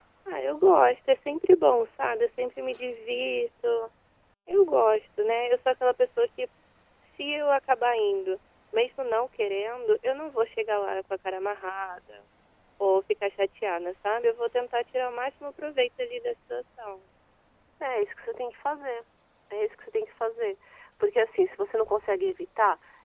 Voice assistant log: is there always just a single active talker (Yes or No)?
Yes